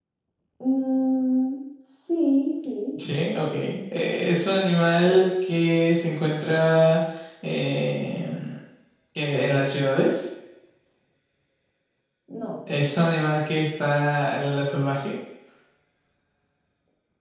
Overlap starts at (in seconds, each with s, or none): none